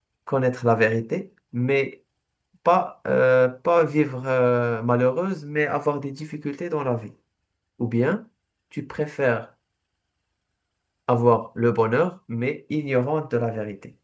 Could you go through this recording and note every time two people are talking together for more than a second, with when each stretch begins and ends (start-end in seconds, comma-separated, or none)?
none